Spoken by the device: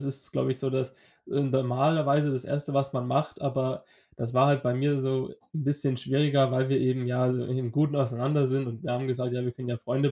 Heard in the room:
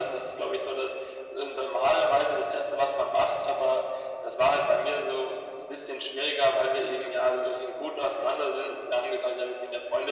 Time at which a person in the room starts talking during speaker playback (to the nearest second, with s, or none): none